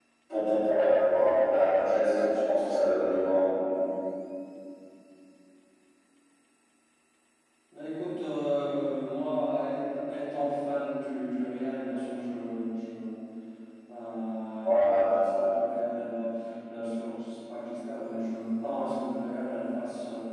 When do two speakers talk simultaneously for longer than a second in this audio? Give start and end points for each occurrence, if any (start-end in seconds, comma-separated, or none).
none